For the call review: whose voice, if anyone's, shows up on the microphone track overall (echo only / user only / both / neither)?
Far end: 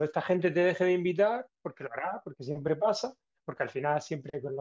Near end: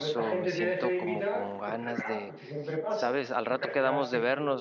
both